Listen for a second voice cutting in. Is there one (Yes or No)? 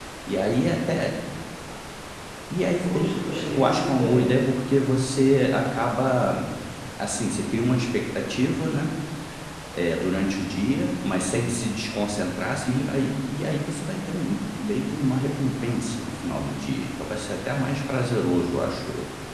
Yes